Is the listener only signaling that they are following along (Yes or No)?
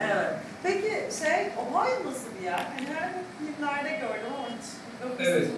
No